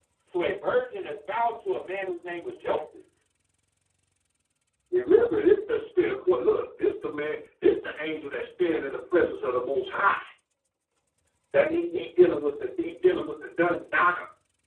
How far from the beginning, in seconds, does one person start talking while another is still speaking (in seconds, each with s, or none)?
none